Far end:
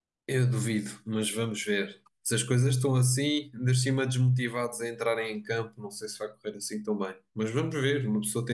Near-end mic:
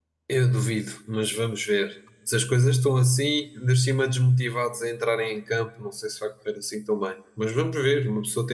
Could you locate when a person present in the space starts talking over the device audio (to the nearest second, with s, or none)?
none